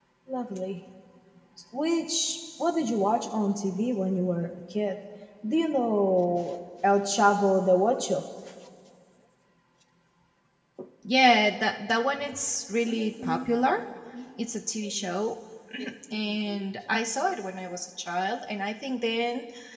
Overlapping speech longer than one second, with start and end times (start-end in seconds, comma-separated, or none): none